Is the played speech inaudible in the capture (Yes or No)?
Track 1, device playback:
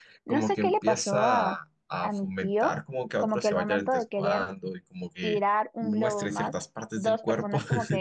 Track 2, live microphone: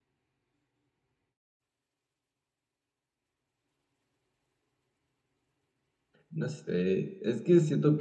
Yes